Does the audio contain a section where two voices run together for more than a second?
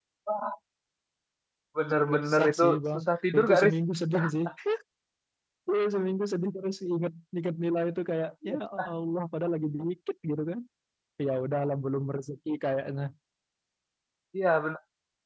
Yes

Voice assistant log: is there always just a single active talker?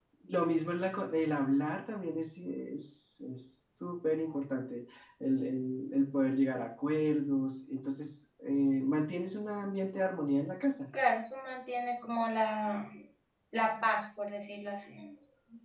Yes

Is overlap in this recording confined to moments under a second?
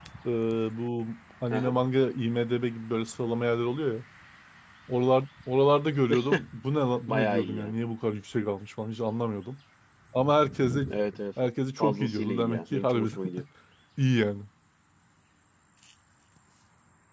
No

